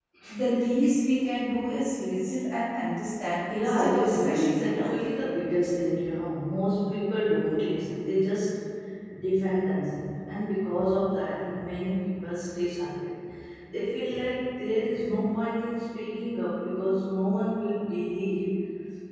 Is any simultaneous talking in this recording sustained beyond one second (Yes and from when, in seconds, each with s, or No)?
Yes, from 3.5 s